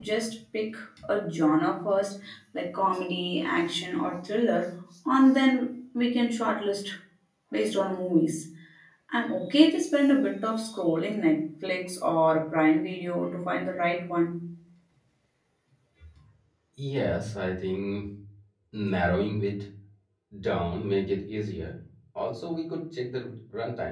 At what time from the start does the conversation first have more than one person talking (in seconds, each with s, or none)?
none